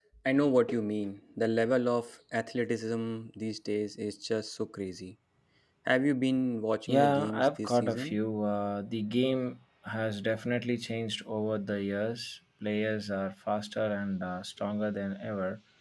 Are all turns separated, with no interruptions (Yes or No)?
No